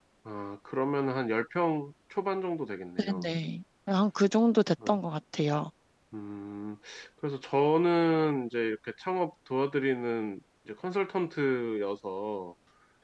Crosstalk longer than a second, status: none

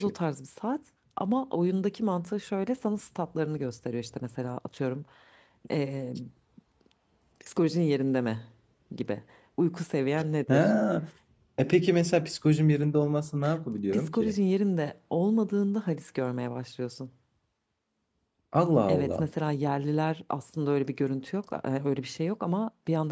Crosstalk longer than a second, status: none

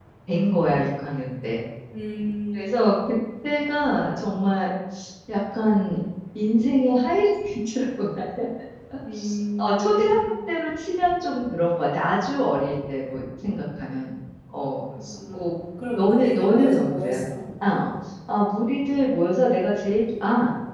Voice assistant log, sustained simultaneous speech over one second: present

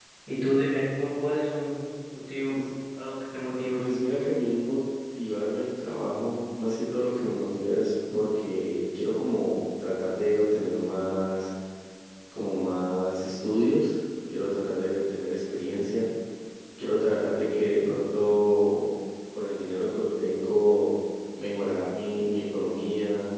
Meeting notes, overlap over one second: none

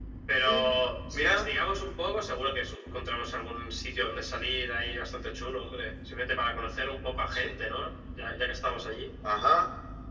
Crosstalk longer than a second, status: none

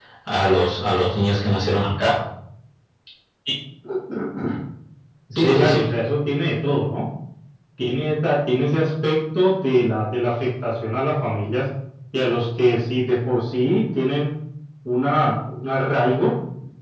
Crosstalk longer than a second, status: none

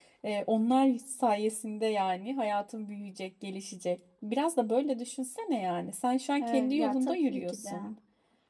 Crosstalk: present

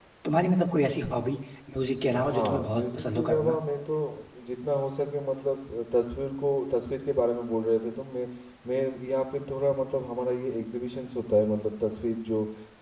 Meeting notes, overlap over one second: present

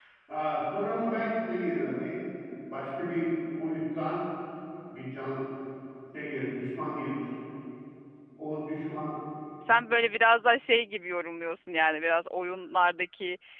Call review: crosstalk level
none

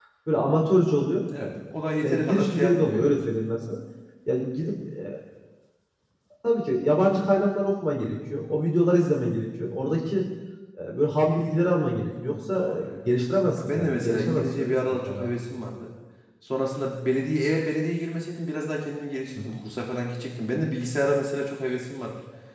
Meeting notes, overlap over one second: present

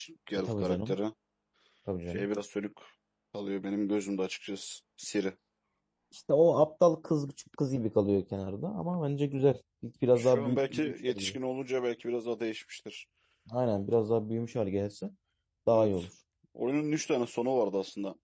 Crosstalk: present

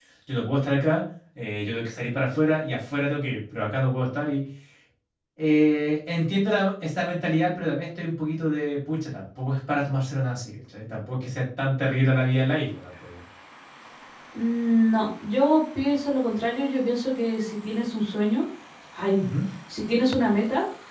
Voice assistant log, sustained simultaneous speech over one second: none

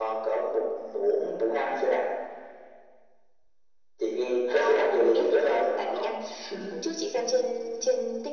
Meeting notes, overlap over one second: present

